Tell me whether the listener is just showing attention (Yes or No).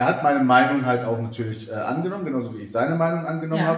Yes